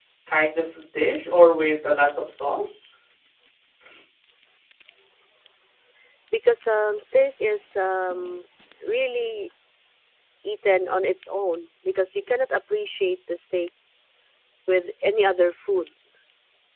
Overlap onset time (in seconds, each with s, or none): none